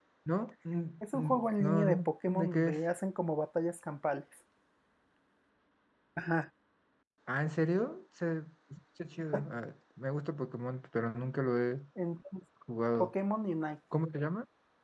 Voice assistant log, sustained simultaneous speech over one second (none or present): present